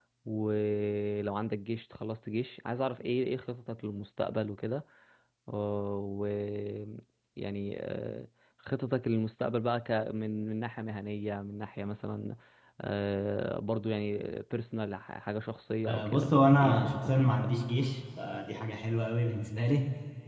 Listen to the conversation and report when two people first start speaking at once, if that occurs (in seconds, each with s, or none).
15.9 s